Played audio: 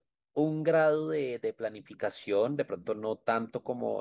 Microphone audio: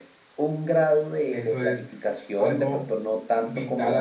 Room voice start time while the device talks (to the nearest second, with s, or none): 1 s